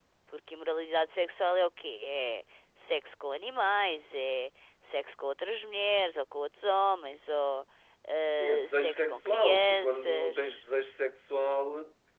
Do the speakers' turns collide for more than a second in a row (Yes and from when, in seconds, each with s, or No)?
Yes, from 8.4 s